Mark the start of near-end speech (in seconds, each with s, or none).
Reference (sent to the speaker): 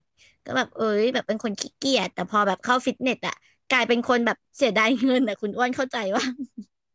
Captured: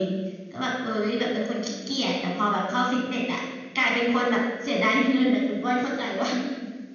none